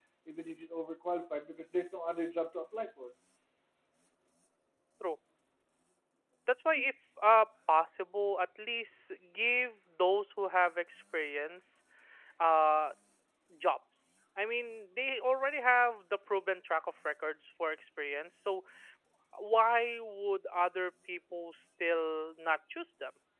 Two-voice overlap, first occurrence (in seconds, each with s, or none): none